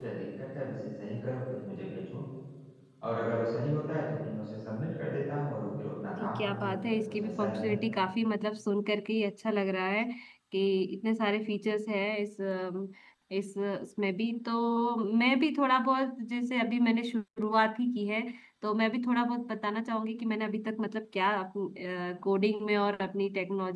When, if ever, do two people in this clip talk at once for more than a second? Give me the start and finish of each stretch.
6.2-7.8

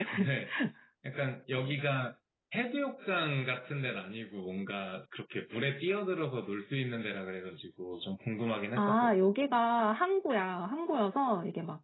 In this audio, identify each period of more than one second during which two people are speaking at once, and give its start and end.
none

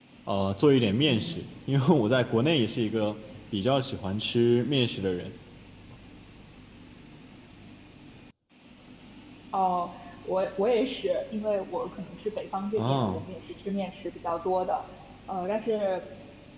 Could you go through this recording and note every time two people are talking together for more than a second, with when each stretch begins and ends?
none

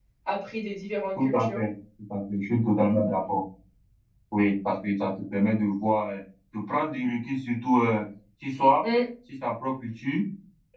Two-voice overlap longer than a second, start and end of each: none

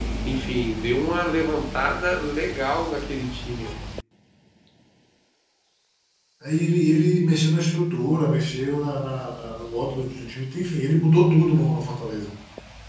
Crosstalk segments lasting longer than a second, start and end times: none

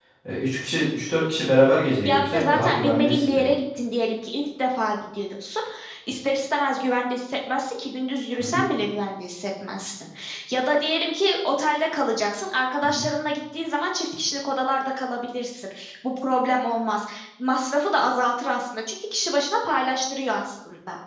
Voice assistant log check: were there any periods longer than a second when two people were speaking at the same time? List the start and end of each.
2.0-3.5

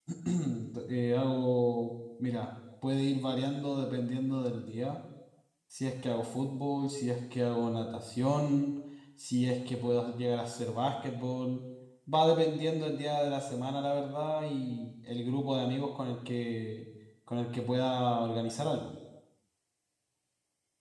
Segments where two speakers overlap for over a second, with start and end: none

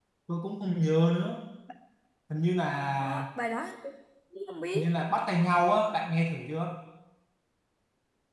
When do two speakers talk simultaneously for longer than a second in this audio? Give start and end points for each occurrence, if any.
none

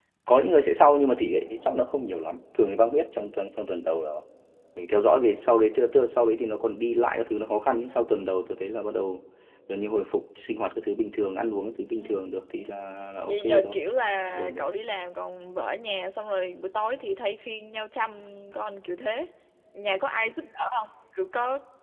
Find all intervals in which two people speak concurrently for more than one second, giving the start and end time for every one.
none

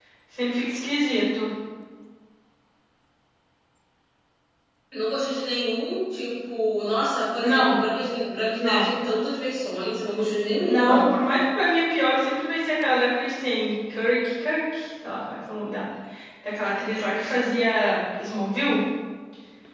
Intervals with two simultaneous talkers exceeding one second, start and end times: none

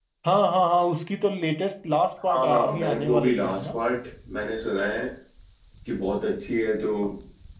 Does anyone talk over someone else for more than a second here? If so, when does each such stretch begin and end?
2.2-3.8

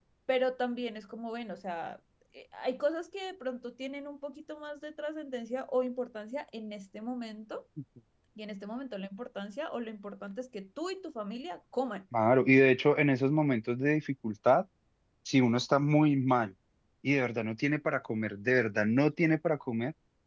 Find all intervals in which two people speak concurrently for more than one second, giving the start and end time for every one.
none

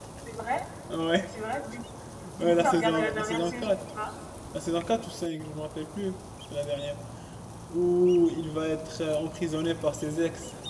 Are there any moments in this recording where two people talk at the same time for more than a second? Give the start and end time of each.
2.4-3.7

